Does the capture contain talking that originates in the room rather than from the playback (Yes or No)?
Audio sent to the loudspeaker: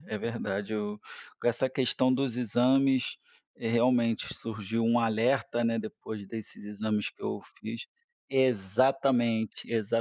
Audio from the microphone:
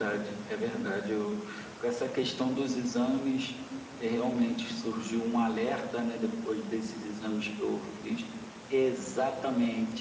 No